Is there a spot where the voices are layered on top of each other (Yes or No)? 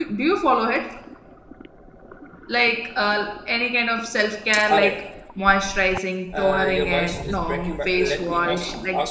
Yes